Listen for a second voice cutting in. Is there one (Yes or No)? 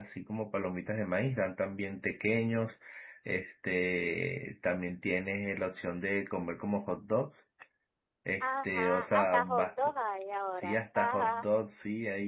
Yes